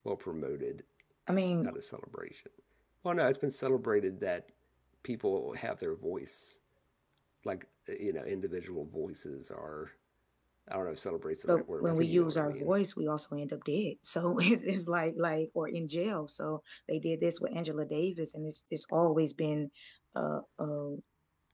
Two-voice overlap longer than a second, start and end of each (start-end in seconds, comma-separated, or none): 11.5-12.7